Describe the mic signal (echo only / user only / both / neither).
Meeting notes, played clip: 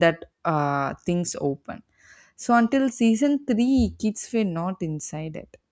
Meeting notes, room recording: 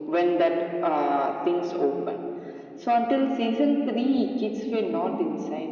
echo only